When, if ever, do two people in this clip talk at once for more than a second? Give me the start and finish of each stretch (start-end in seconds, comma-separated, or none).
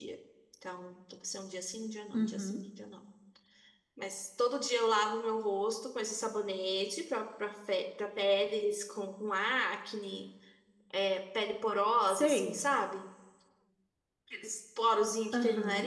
none